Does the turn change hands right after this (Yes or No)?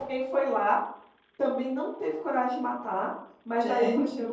No